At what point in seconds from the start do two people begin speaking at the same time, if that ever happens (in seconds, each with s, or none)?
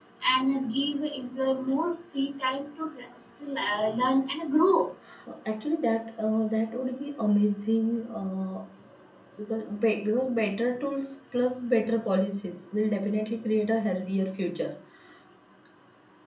none